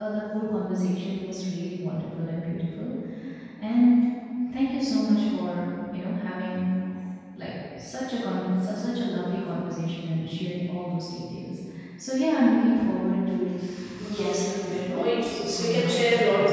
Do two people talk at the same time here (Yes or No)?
Yes